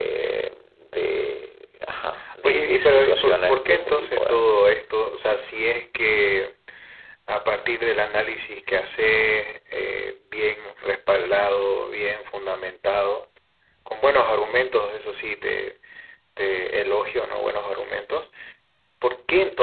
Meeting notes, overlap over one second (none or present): present